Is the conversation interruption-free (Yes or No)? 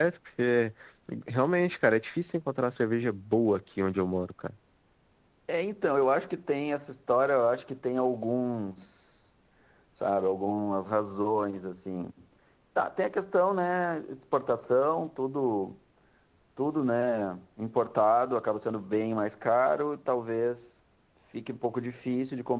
Yes